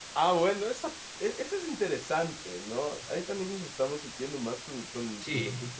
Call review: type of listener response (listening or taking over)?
taking over